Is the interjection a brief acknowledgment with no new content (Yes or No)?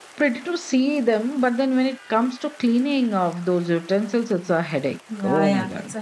No